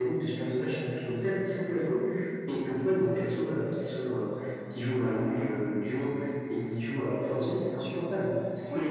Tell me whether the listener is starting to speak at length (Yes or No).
Yes